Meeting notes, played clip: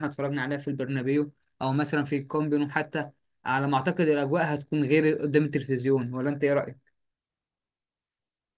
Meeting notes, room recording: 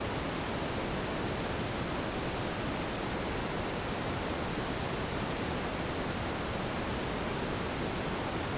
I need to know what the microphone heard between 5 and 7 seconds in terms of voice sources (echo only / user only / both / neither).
neither